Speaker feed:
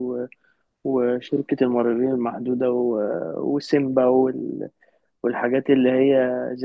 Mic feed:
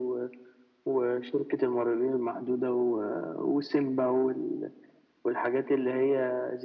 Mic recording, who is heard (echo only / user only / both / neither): echo only